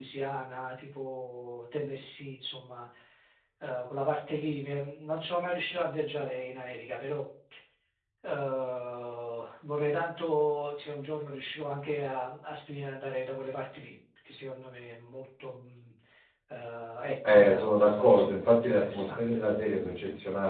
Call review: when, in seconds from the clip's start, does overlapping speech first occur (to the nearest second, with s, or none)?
17 s